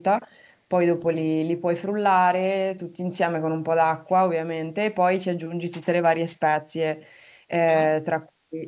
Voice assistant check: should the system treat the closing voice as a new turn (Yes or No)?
No